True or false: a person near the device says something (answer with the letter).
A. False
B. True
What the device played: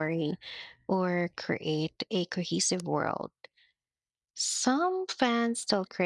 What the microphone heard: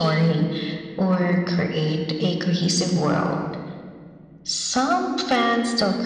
A